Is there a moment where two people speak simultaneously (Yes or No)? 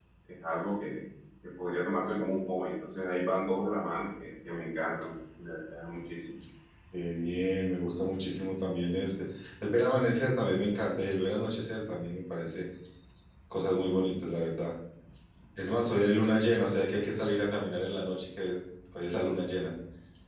No